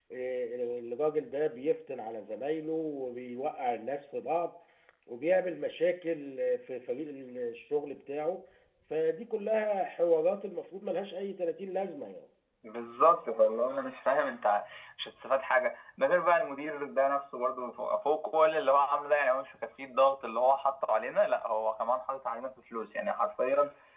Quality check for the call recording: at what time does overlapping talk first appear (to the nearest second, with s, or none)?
none